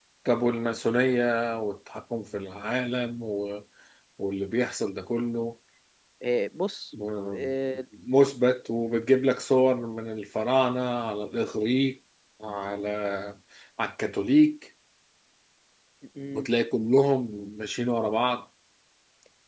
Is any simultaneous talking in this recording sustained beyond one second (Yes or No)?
No